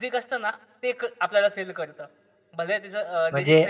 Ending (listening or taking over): taking over